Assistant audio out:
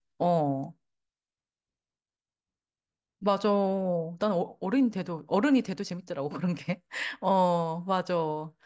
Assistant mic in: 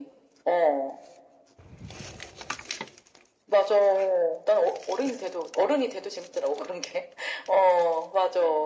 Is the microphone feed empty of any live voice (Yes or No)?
Yes